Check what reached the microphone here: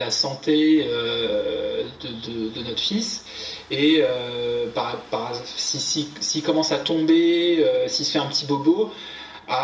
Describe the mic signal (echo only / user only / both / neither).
echo only